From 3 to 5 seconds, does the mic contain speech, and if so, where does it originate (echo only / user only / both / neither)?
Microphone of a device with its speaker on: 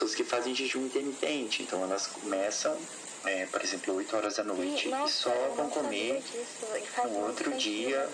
echo only